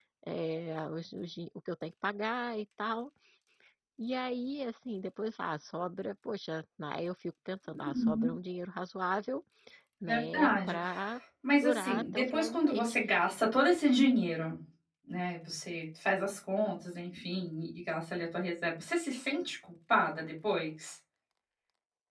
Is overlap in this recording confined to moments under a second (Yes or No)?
No